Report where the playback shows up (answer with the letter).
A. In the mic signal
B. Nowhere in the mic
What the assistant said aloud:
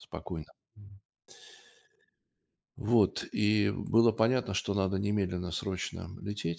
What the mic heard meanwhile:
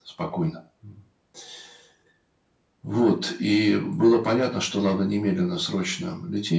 A